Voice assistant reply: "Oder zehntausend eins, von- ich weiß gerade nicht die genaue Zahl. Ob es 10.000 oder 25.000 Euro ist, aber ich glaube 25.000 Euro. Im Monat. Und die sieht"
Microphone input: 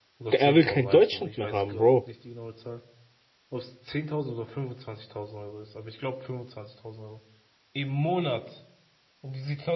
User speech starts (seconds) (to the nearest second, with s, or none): 0 s